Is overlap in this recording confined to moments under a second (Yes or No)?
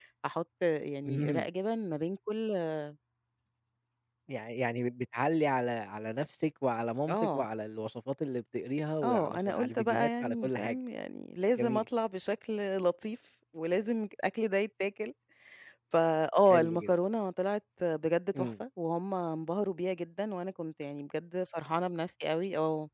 No